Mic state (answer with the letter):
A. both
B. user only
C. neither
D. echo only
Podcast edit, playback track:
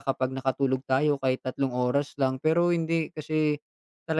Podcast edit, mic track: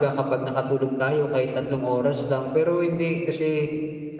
D